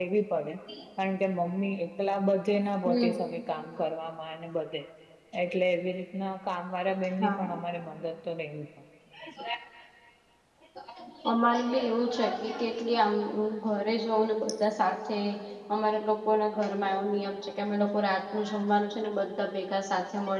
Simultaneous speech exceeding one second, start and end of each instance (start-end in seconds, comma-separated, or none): none